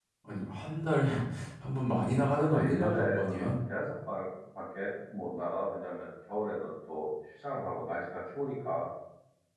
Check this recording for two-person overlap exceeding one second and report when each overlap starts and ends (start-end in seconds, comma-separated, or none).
2.4-3.6